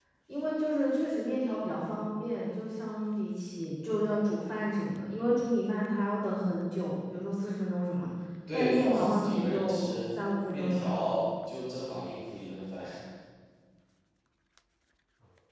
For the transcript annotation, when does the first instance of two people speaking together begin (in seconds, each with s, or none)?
8.5 s